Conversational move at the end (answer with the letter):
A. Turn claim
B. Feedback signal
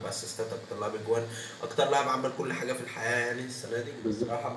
B